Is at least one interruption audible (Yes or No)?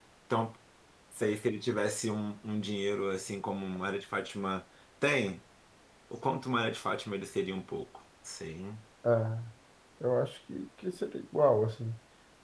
No